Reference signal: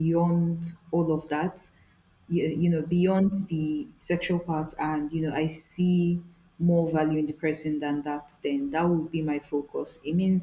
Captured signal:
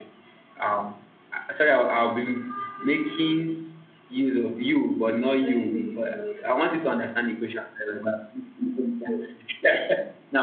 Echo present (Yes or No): No